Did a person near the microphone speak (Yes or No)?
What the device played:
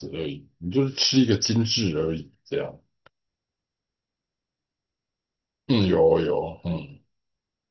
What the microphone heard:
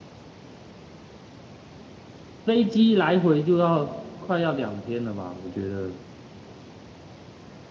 Yes